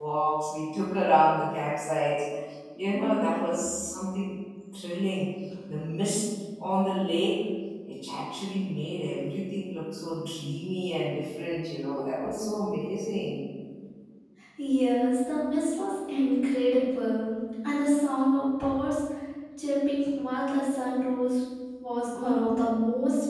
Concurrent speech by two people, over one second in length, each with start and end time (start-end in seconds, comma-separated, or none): none